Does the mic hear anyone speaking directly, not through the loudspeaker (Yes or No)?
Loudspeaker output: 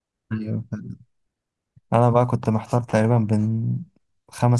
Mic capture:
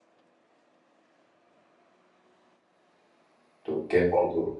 Yes